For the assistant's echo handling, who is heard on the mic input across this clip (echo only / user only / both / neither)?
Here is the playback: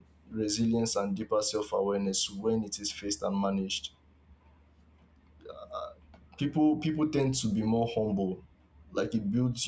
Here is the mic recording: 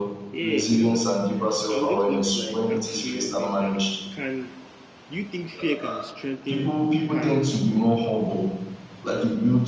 both